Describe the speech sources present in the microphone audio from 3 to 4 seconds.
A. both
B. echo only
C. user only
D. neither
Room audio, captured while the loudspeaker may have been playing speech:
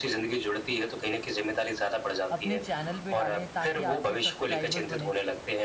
A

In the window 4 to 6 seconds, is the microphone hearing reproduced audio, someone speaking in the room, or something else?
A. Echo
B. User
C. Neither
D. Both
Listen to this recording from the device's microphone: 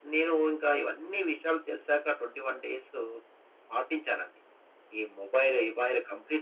A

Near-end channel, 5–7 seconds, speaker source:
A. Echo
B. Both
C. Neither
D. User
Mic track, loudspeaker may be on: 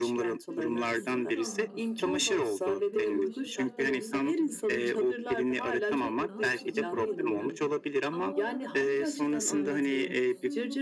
B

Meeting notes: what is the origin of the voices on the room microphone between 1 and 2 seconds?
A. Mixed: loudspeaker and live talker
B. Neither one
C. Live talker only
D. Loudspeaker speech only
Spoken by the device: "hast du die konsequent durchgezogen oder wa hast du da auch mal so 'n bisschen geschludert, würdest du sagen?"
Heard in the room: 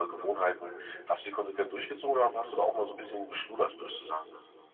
D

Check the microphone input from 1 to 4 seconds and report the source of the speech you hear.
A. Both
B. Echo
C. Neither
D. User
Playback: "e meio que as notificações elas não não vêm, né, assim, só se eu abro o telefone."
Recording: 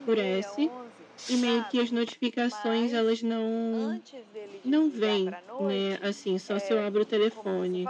A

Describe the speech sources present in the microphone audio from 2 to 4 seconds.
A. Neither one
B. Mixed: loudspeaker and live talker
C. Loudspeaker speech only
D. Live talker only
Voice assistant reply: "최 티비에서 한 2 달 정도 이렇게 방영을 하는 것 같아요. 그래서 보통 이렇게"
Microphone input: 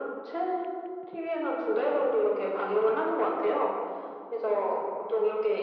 C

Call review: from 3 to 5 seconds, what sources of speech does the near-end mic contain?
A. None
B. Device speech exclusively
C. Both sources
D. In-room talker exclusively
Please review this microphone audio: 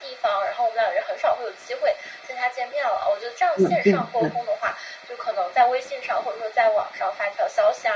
C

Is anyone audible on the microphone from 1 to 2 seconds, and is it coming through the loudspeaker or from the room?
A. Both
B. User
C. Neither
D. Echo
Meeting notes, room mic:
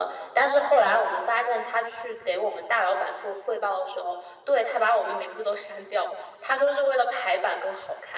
D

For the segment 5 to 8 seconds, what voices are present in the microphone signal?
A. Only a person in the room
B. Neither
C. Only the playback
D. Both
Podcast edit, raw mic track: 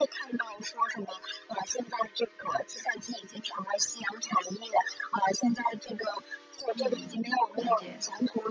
D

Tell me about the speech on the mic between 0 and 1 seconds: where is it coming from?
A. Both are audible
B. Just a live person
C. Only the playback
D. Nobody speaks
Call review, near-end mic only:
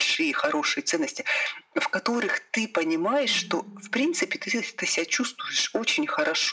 C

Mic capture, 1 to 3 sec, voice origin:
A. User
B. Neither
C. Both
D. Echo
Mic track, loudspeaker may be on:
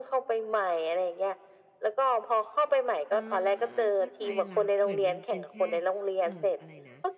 D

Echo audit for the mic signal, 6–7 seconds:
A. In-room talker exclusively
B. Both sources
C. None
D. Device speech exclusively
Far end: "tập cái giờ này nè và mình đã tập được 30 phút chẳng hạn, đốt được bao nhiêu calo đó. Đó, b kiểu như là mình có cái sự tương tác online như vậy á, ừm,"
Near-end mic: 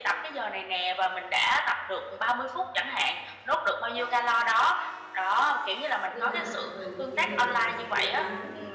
B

